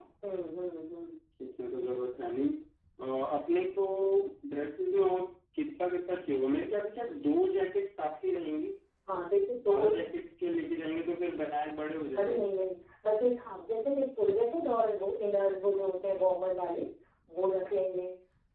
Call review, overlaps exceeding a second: none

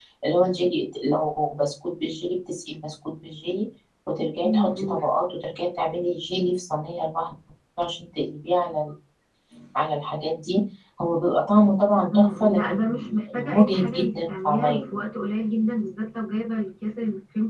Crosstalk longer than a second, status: present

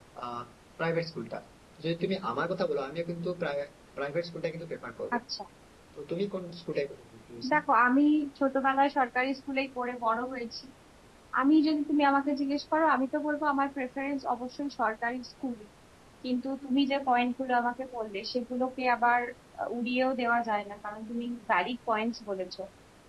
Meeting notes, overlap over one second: none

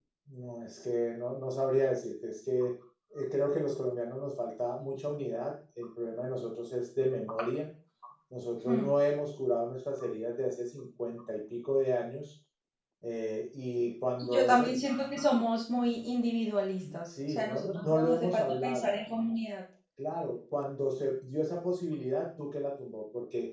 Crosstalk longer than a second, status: present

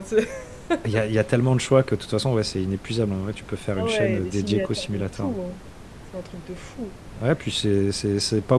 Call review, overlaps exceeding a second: present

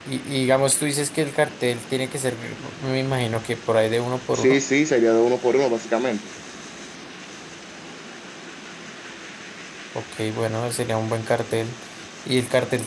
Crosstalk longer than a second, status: none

